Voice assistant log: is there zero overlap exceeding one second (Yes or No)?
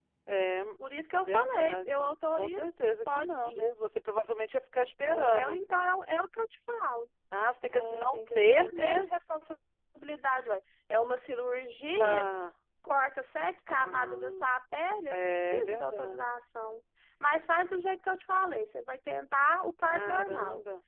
No